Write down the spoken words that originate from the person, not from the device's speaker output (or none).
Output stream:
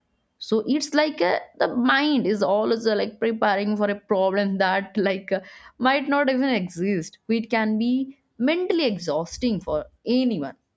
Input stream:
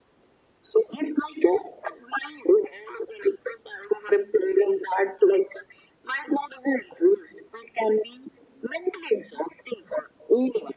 none